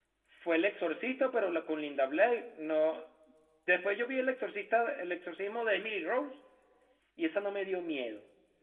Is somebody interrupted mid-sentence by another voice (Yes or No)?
No